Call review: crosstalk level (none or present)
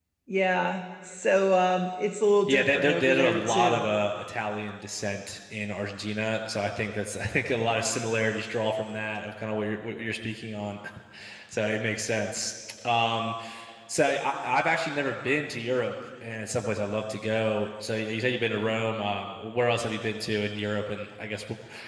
present